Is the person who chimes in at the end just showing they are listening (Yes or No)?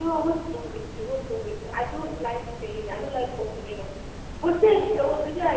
Yes